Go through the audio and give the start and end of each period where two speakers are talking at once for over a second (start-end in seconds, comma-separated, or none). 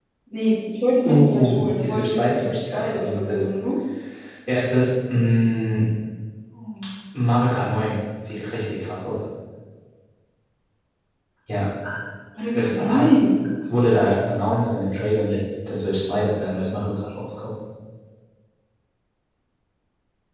1.1-3.5